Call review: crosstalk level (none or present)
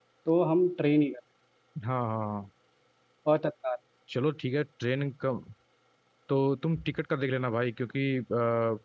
none